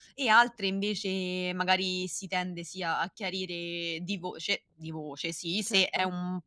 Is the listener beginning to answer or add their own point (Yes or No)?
No